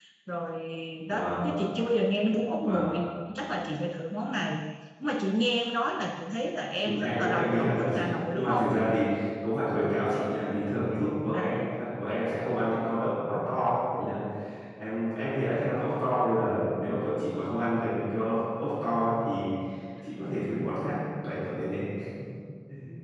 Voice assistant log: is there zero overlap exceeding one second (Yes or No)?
No